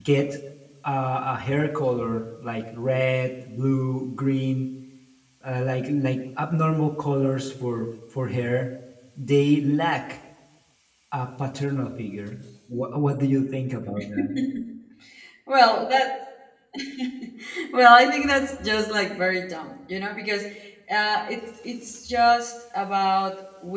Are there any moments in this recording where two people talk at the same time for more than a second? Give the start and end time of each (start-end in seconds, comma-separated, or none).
none